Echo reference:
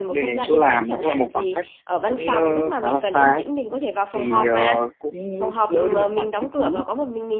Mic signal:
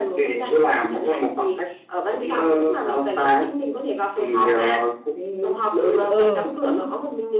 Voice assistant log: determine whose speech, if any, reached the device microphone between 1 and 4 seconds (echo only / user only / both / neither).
echo only